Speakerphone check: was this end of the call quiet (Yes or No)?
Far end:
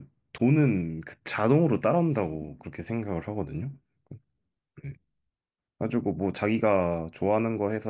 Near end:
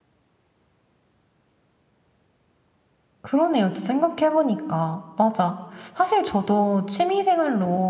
No